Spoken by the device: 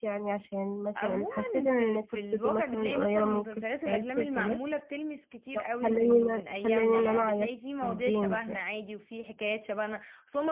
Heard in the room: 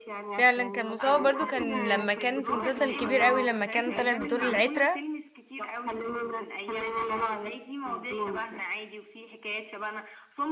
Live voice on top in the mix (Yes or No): Yes